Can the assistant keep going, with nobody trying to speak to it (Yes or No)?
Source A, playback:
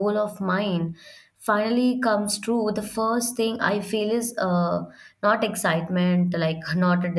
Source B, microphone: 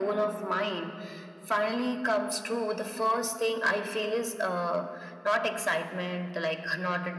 Yes